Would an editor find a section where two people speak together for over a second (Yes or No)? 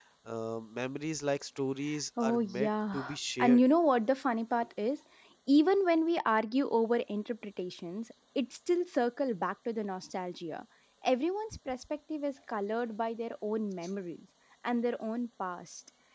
Yes